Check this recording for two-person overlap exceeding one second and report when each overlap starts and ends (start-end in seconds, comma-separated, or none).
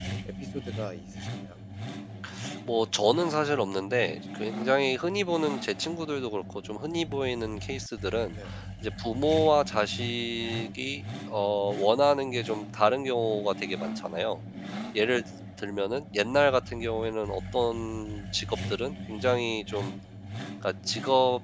none